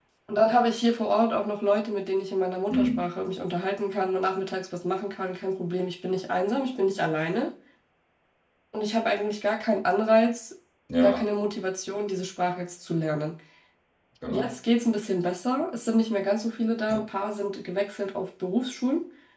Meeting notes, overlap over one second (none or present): none